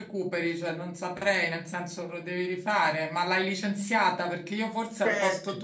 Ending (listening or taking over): listening